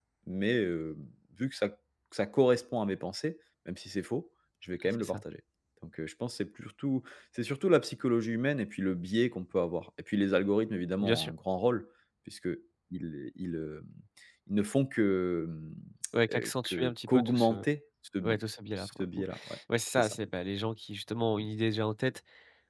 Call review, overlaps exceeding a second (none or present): present